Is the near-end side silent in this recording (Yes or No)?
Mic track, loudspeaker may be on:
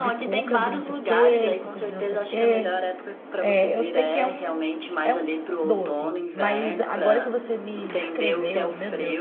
No